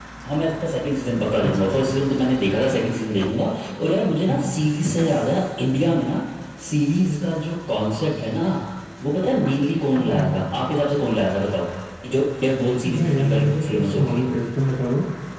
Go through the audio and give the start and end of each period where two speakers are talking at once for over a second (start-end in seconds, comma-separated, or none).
12.8-14.4